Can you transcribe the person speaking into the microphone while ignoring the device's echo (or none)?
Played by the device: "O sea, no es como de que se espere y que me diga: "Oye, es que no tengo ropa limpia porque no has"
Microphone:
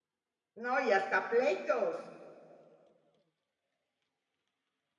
No y hasta pleitos.